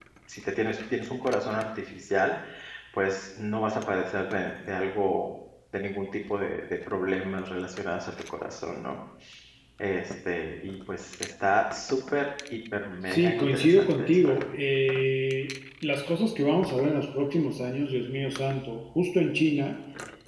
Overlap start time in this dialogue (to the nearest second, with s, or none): 13 s